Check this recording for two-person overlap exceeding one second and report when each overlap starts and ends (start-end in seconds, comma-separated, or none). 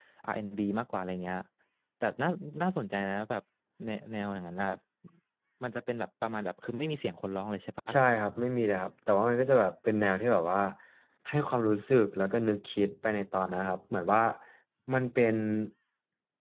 none